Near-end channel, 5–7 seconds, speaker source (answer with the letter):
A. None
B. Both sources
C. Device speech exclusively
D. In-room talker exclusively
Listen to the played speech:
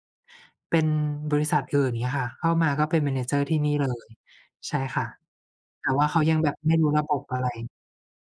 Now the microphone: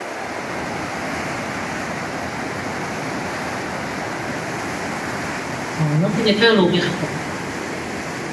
D